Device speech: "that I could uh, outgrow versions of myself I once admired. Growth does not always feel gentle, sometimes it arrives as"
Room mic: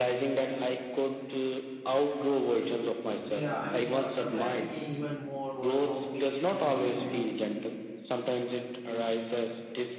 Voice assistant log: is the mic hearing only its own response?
No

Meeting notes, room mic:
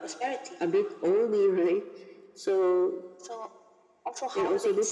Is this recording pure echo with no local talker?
Yes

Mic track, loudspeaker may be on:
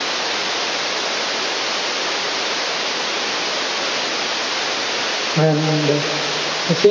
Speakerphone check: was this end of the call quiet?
No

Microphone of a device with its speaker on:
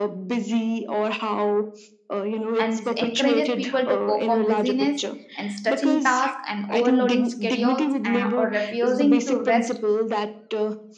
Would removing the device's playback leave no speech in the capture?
No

